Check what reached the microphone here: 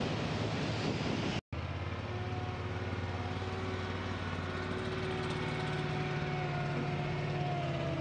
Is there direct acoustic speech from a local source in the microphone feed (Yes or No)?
No